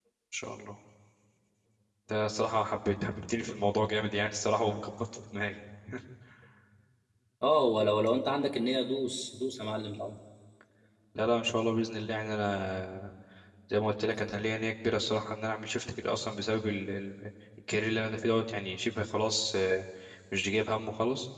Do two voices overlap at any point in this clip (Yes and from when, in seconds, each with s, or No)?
No